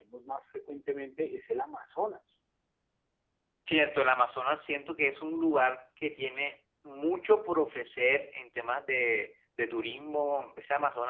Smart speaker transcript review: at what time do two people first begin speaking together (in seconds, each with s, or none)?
none